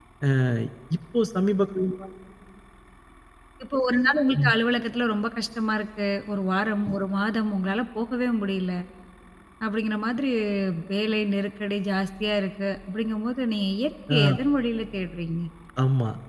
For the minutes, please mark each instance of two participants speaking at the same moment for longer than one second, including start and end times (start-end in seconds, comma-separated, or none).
none